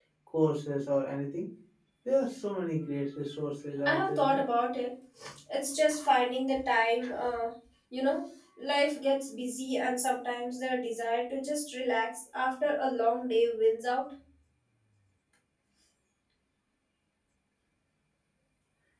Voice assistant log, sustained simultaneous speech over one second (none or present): none